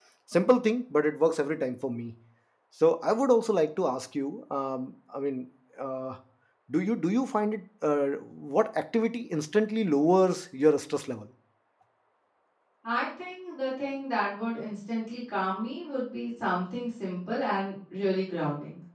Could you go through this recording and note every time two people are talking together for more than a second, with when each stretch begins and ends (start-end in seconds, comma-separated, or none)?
none